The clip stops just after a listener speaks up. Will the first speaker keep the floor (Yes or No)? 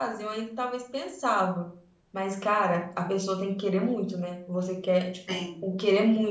Yes